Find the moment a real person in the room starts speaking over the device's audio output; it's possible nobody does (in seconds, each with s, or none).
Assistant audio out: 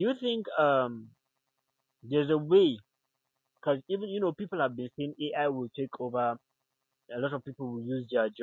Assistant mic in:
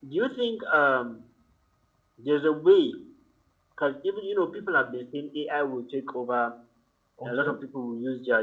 7.2 s